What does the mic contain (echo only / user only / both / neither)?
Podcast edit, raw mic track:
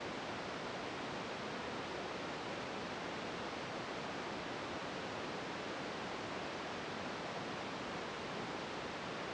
neither